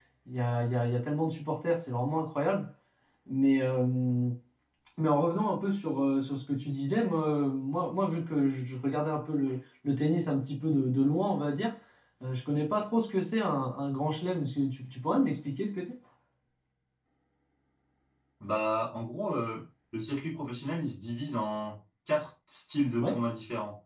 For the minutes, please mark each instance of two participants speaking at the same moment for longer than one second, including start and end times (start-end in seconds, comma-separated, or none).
none